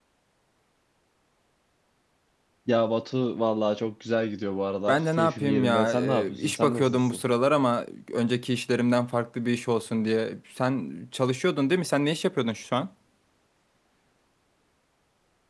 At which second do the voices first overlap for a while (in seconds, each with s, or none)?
4.9 s